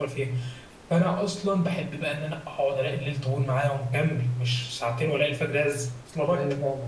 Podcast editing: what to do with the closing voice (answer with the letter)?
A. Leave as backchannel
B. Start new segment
B